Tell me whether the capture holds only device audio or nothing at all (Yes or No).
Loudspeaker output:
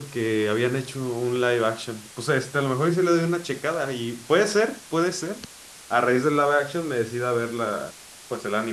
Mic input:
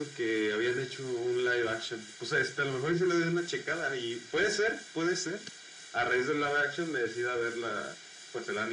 Yes